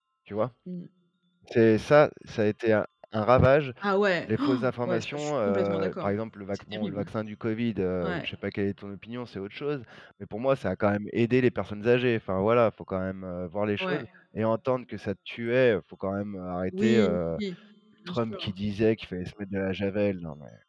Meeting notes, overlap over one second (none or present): present